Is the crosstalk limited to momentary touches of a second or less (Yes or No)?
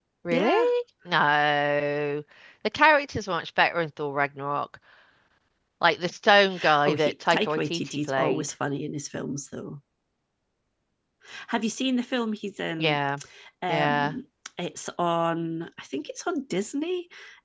No